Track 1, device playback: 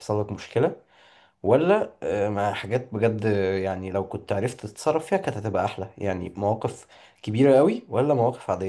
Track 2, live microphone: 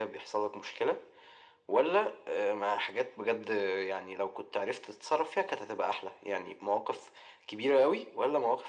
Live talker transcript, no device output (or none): none